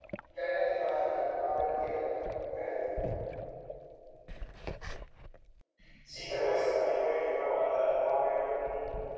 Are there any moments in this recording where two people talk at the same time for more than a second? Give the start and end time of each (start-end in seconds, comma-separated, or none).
none